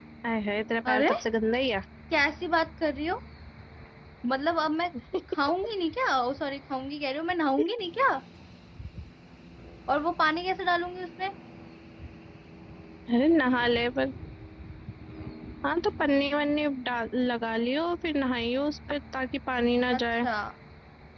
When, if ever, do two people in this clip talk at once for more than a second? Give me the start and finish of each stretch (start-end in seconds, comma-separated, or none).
none